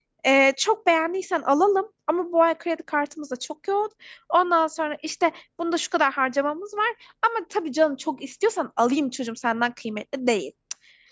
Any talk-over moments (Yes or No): No